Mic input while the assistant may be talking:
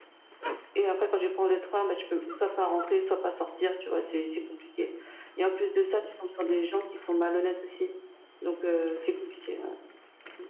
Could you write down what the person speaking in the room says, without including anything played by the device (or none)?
none